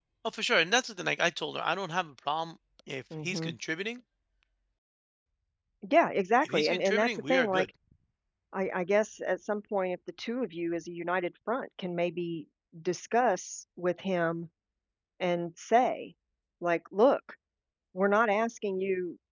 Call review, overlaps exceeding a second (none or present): present